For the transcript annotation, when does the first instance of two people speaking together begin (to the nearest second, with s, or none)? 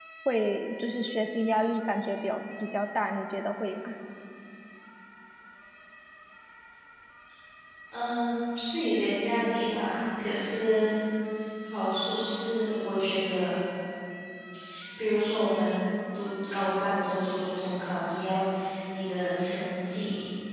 none